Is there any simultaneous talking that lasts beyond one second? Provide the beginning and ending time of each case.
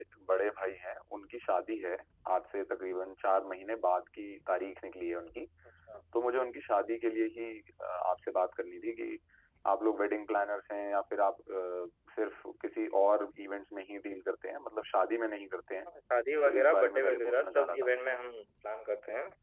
16.4-18.1

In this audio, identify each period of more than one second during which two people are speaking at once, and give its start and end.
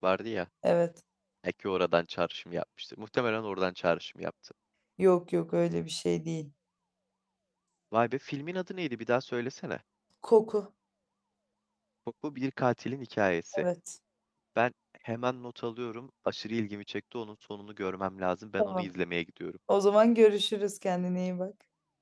none

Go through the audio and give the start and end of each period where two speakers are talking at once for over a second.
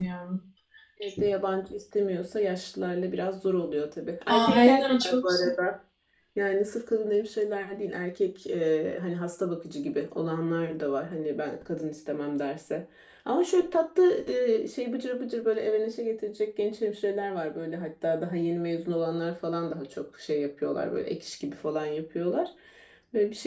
4.3-5.5

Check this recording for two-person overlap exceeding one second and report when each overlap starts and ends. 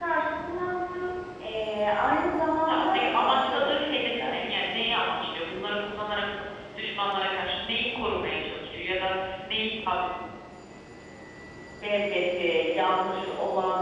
2.7-4.4

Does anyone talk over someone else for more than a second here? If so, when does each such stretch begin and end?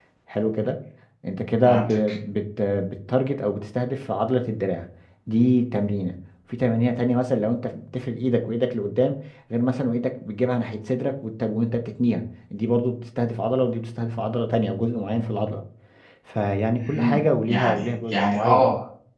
16.8-18.7

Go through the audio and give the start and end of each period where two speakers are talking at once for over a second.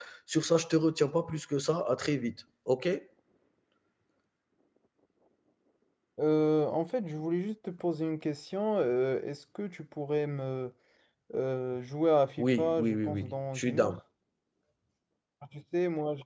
12.4-13.9

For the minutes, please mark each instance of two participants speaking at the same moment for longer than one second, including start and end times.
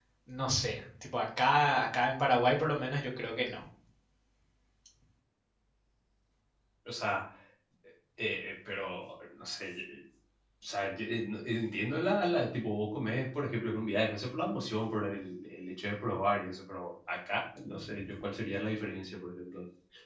none

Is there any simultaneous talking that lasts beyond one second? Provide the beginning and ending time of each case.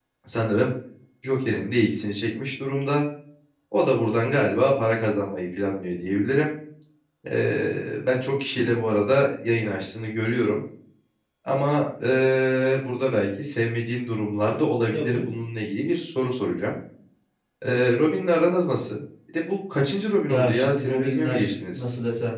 20.3-21.8

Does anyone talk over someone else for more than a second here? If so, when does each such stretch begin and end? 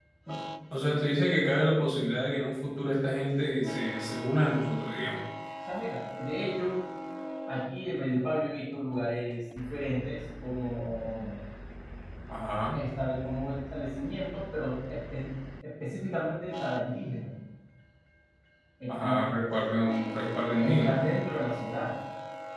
none

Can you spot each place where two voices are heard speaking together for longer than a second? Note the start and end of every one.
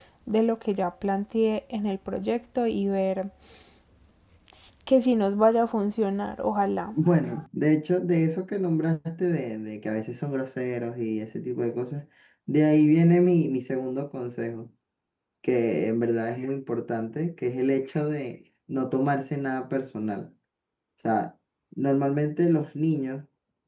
none

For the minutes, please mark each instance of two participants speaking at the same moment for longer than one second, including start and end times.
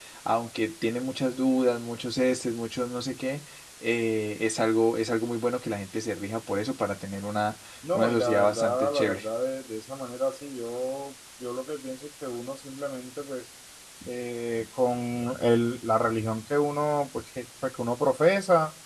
7.9-9.2

